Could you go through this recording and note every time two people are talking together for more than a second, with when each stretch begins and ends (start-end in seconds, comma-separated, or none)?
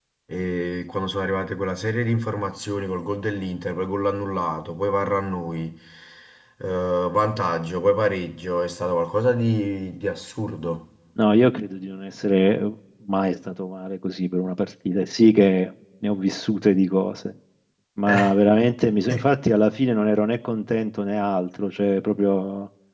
none